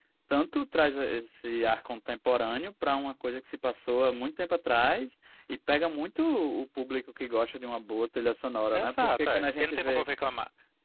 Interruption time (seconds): 8.7 s

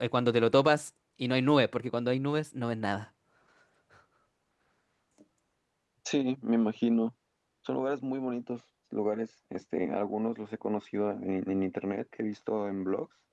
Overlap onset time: none

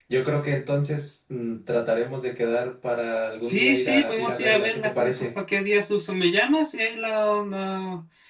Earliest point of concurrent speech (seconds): 3.4 s

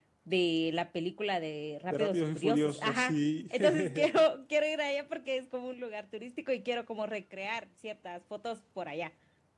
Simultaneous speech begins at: 1.9 s

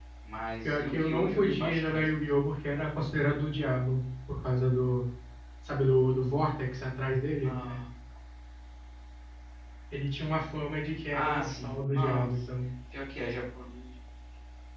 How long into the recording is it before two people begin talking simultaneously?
0.6 s

